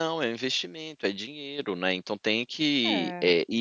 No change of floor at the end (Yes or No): Yes